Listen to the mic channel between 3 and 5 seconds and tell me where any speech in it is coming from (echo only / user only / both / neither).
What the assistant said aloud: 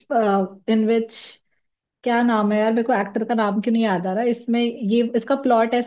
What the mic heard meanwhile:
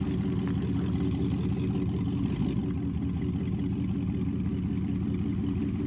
neither